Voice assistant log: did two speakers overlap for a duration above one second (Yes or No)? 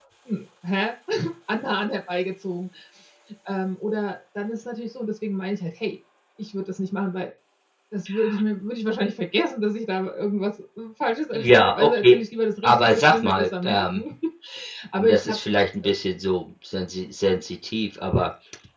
Yes